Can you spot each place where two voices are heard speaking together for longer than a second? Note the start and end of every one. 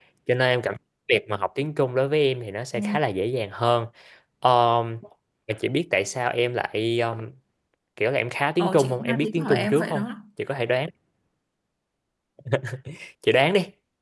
8.6-10.1

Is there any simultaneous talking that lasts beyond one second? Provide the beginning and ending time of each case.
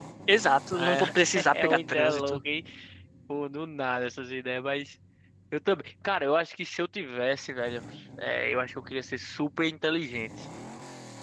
0.7-2.4

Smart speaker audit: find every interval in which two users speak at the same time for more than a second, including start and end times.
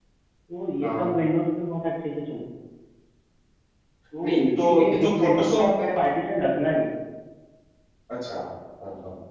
4.2-5.7

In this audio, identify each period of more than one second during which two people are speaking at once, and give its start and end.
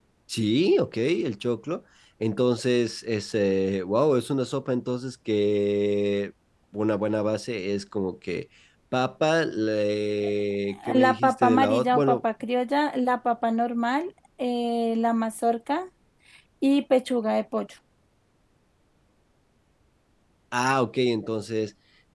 10.9-12.2

